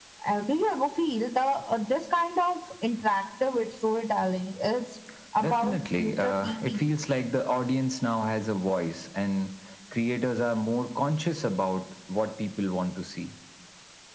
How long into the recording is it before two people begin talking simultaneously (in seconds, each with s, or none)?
5.4 s